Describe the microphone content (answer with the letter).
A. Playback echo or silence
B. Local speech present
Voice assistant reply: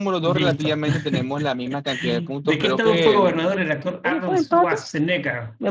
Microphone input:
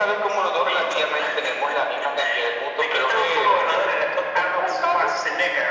A